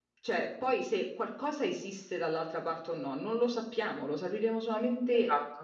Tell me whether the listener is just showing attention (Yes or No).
Yes